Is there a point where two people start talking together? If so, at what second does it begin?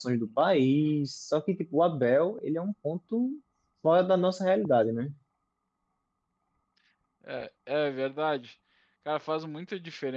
none

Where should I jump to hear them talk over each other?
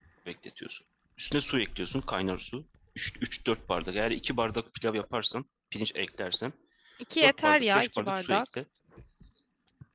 7.2 s

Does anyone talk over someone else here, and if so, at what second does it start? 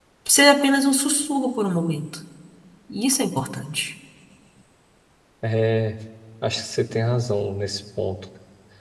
none

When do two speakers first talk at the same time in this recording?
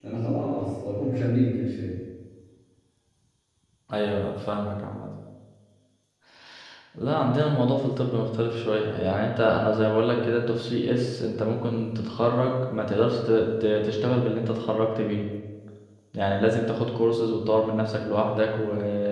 none

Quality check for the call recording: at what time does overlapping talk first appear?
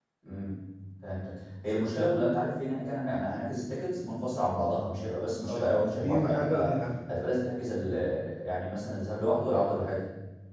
5.4 s

